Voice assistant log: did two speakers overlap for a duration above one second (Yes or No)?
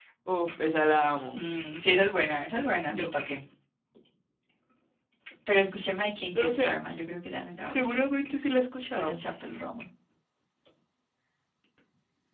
No